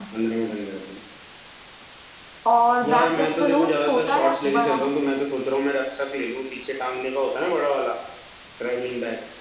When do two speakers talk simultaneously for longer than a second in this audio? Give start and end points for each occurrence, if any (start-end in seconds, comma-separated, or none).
2.8-4.8